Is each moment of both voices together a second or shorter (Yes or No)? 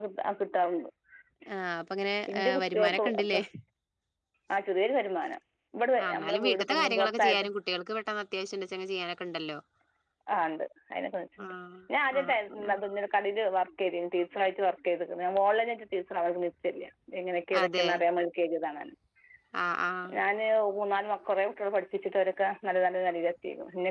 No